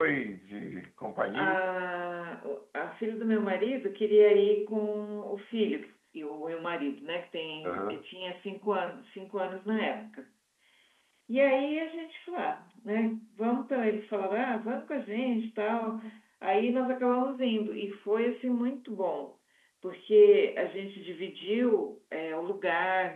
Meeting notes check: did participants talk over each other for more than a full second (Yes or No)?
No